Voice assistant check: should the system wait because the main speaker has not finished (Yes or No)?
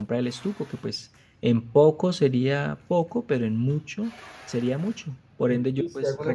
No